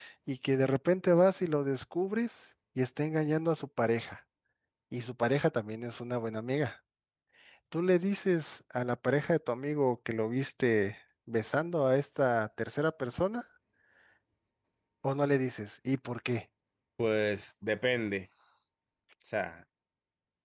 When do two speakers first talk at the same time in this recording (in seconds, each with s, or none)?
none